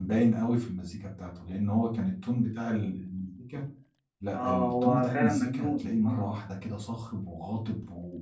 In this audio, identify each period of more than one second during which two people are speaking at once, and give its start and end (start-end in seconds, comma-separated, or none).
4.3-6.3